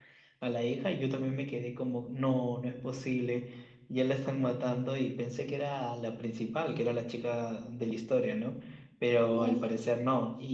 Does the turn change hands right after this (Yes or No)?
No